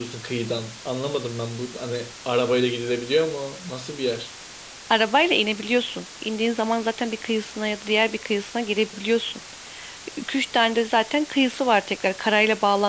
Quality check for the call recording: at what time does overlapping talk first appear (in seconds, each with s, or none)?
none